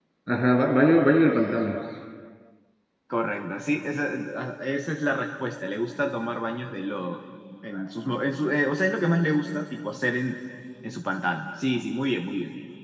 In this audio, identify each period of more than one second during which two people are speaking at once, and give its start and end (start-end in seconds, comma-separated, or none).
none